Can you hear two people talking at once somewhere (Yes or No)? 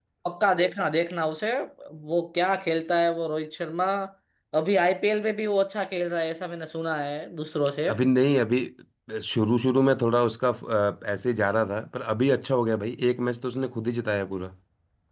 No